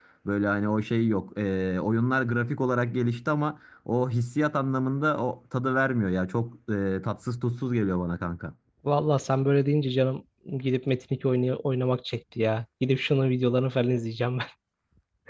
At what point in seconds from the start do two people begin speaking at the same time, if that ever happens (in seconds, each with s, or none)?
none